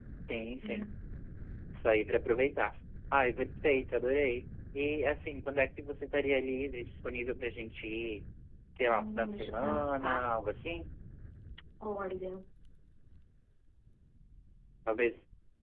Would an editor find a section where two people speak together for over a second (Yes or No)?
Yes